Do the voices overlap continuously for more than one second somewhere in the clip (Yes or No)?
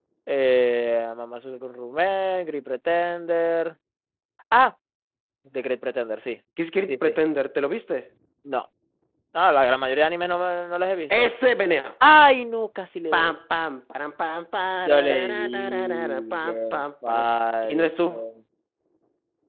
Yes